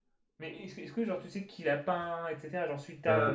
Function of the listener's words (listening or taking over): taking over